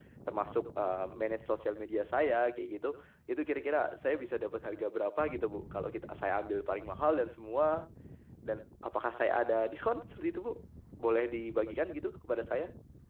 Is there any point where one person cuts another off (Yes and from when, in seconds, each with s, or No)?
No